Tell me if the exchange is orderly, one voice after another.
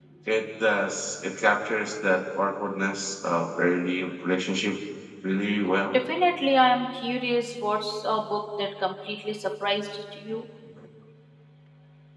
Yes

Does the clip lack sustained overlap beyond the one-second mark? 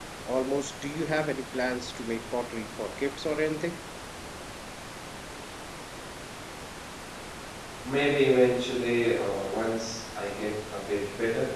Yes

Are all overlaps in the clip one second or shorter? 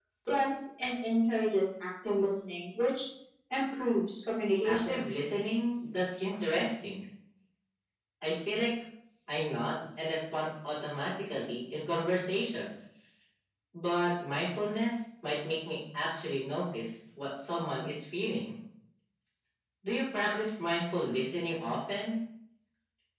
Yes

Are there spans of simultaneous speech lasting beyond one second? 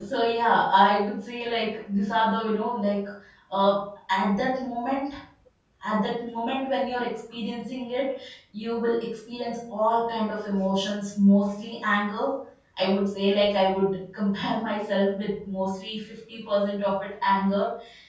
No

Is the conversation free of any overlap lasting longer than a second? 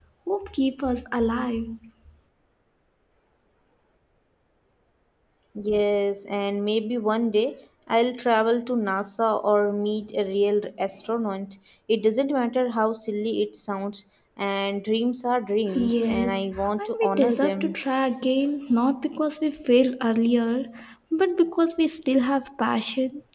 No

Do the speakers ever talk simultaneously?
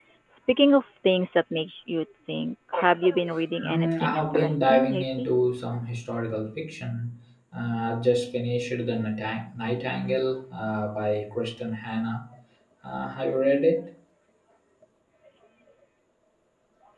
Yes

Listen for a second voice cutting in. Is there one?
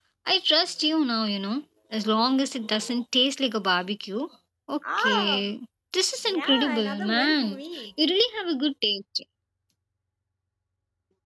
Yes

